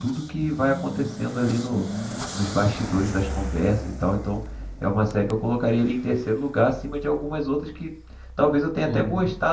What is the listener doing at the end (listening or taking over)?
listening